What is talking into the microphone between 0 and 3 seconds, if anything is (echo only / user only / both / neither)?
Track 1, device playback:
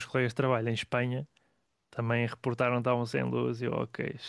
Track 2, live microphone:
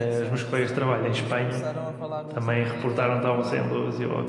both